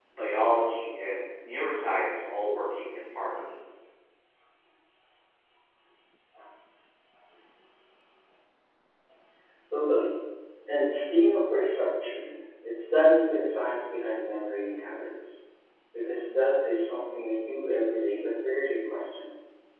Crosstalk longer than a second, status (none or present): none